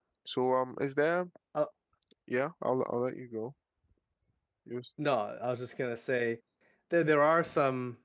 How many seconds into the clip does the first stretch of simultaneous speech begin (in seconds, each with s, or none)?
none